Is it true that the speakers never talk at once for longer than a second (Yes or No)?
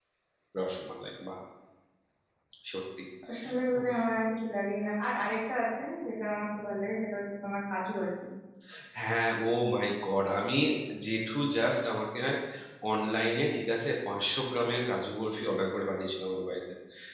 Yes